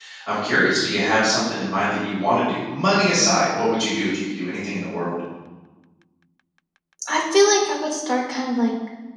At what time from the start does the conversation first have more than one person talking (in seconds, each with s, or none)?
none